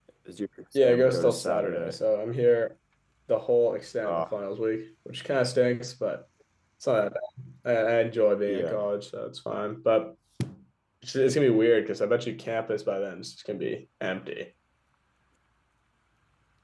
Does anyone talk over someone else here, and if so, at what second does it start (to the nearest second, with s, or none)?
1 s